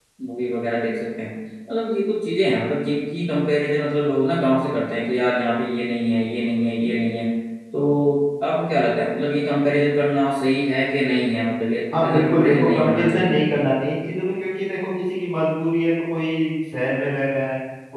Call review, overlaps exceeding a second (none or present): present